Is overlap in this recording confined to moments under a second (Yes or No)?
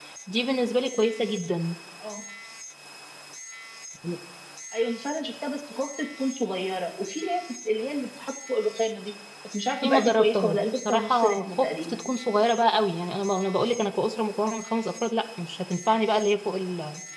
No